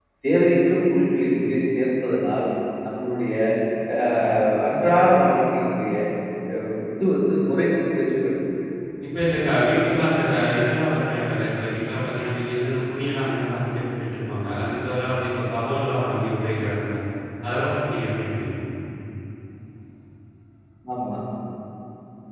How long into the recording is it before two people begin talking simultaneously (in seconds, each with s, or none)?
none